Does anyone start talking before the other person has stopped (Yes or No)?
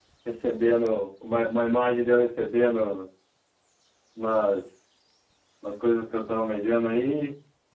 No